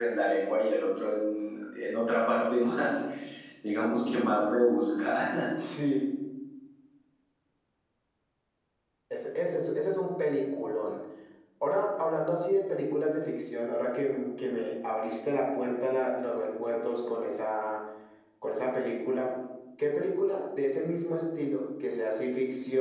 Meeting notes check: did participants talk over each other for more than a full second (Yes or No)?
No